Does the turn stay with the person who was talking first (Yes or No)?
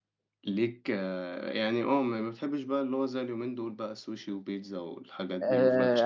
No